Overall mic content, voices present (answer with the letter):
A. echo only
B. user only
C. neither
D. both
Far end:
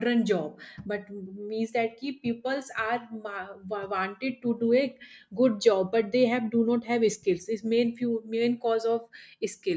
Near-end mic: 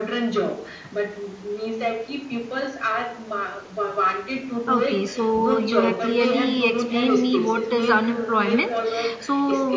D